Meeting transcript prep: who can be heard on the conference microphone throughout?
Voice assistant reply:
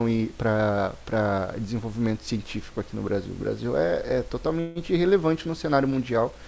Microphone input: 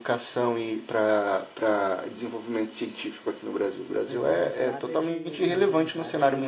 both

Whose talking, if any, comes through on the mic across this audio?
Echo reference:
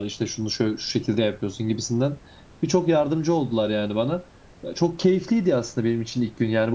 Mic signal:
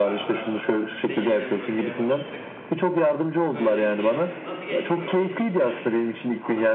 both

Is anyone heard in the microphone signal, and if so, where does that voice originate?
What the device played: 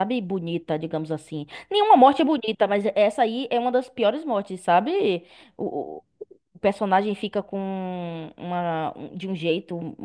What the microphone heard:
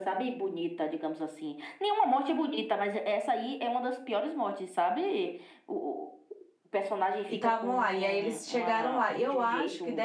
both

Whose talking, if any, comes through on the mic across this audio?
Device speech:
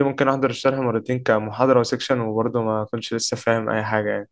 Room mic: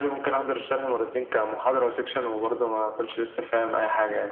echo only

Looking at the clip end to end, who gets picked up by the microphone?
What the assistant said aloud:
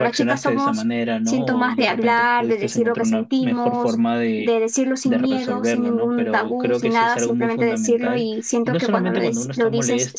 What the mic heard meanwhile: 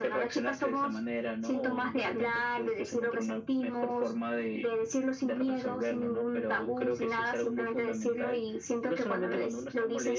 echo only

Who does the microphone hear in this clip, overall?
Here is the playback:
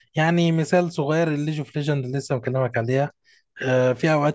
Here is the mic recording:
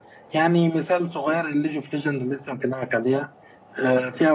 echo only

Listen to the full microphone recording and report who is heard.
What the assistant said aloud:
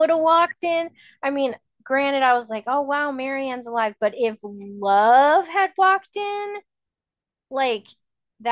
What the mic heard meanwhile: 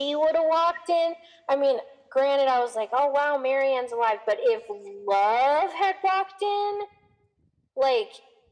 echo only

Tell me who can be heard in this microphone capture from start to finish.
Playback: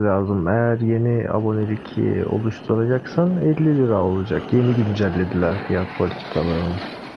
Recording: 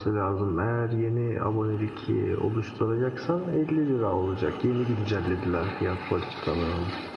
echo only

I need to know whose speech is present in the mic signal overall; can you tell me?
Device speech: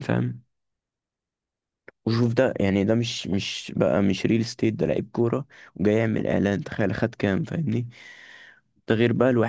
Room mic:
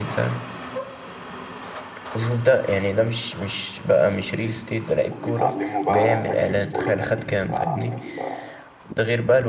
both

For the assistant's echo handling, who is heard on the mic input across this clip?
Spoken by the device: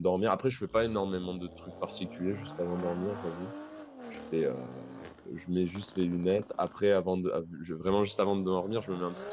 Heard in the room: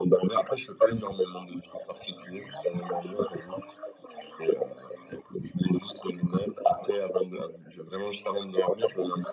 echo only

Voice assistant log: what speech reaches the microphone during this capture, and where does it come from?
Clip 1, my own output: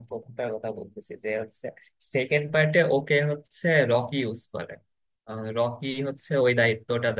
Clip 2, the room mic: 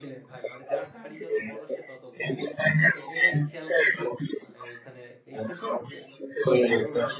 both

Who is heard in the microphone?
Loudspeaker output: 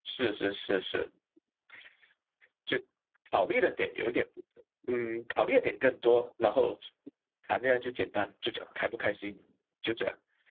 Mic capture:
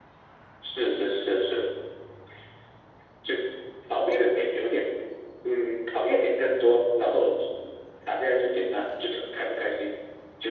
echo only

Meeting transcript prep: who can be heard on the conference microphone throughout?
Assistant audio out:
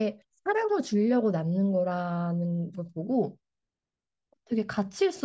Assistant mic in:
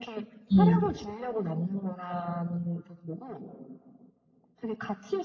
both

